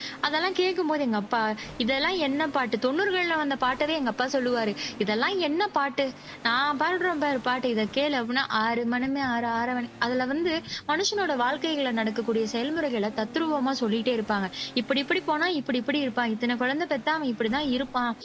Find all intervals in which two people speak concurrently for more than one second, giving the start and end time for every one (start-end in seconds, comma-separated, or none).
none